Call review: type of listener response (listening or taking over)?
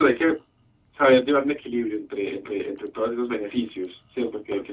taking over